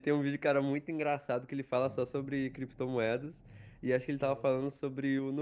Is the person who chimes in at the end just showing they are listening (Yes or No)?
Yes